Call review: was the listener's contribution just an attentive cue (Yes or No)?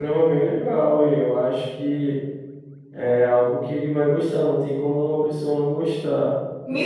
No